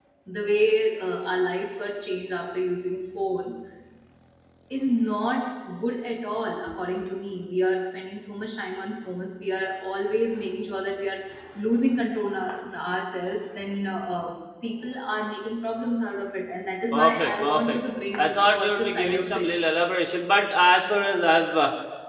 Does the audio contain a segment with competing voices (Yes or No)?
Yes